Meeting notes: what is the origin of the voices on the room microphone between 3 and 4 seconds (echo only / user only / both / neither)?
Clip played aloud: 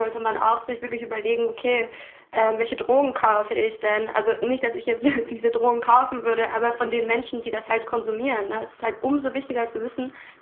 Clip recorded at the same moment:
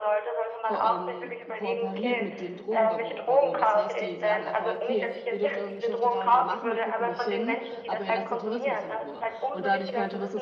both